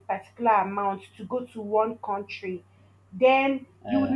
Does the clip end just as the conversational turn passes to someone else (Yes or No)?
No